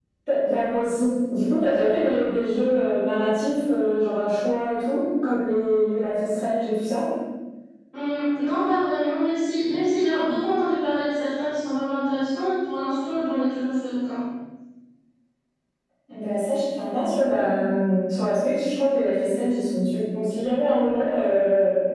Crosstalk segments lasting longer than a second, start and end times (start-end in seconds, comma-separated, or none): none